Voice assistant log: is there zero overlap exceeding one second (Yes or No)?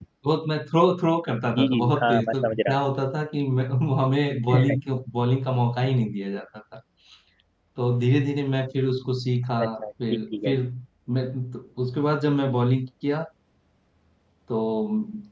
No